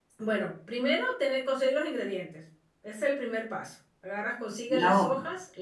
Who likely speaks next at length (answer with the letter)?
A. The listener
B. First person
B